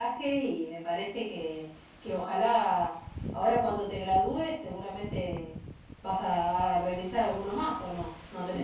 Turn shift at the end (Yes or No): Yes